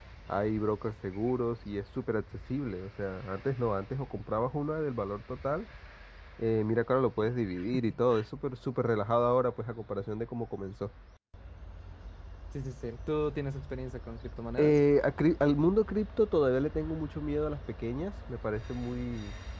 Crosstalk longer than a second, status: none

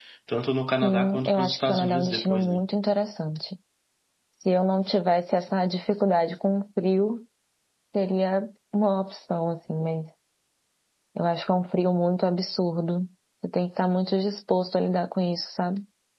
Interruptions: present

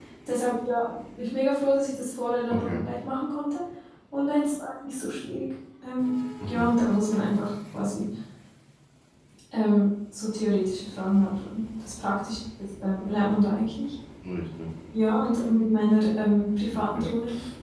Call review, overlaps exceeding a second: none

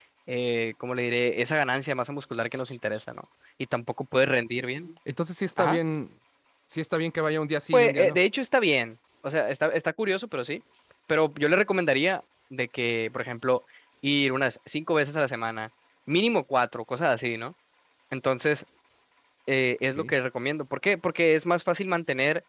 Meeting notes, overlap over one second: none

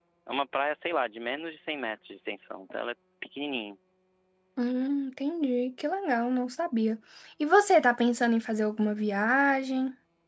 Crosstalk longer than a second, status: none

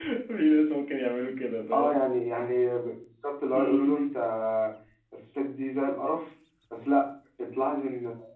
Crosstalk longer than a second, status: none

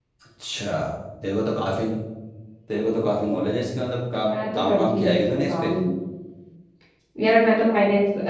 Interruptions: present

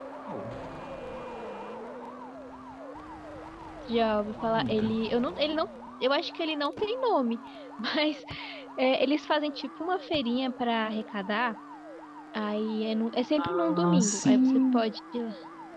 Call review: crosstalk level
present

